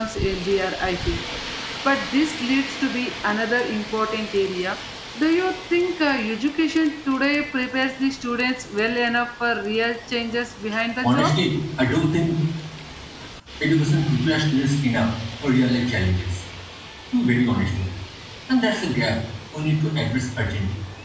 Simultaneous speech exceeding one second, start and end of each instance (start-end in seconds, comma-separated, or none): none